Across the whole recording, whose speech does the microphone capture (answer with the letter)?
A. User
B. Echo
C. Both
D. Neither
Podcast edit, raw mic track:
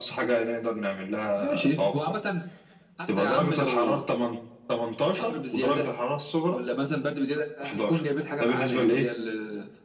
B